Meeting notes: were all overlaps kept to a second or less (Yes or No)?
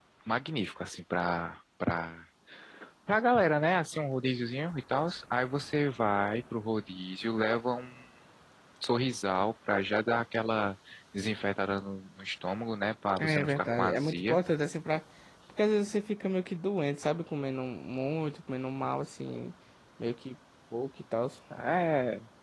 No